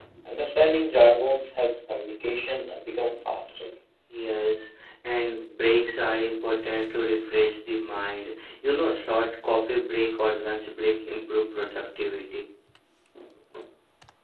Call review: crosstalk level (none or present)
none